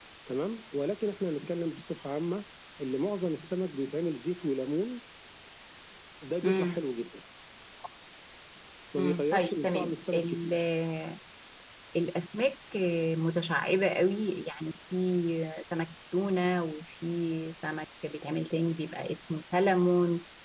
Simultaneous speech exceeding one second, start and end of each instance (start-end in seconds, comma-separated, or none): 9.0-10.5